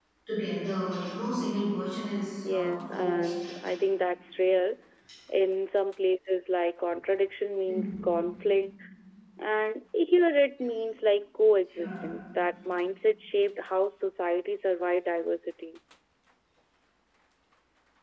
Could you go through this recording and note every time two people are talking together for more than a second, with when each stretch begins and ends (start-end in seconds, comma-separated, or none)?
2.5-3.7